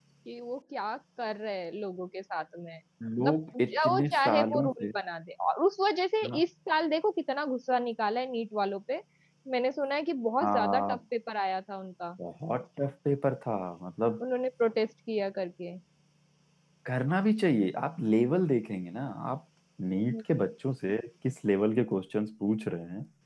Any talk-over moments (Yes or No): Yes